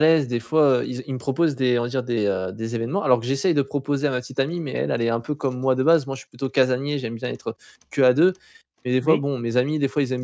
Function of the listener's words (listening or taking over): listening